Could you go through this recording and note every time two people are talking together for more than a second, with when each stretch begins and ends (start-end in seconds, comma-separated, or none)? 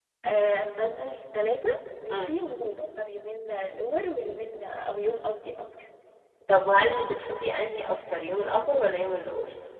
none